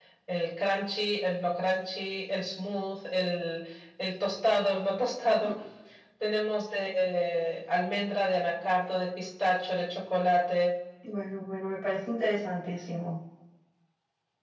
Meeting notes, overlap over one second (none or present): none